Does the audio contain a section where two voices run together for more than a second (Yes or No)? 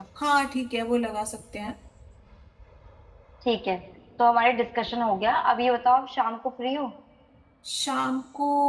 No